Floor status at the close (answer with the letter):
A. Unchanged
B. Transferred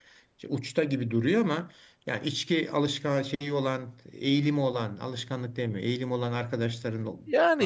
B